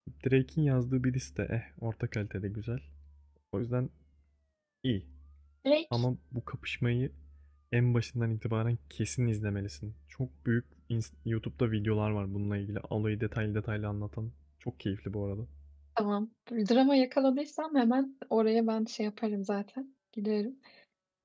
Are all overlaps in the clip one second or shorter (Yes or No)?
Yes